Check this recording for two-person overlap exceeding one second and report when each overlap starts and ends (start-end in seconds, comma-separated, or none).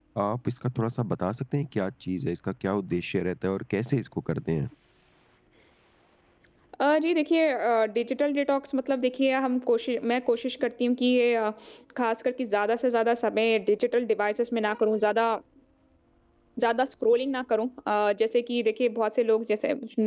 none